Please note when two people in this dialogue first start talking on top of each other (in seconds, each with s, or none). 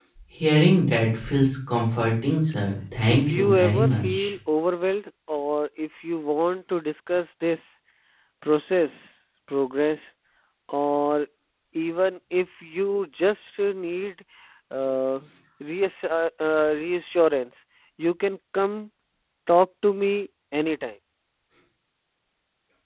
3.1 s